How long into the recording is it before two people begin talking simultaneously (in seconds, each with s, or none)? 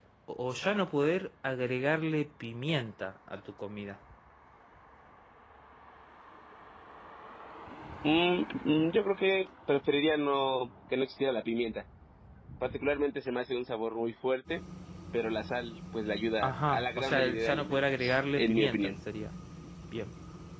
16.4 s